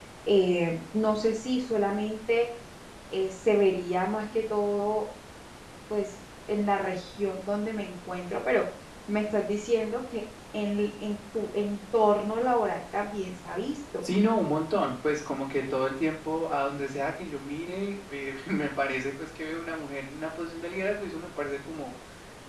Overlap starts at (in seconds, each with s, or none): none